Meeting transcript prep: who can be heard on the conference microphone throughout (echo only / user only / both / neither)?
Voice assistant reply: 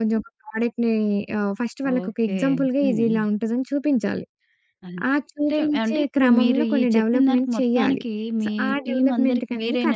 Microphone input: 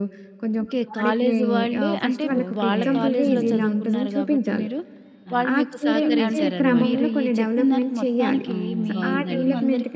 both